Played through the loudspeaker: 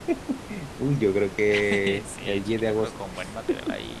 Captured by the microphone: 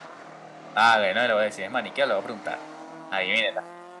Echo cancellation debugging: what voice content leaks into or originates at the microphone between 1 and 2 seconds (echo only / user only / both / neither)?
user only